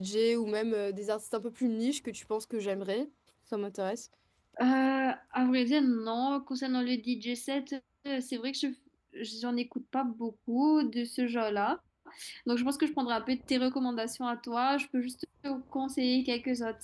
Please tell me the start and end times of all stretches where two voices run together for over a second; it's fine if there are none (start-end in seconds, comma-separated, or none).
none